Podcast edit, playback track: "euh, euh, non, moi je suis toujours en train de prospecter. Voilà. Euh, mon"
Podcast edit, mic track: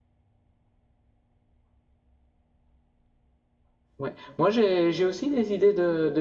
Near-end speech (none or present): present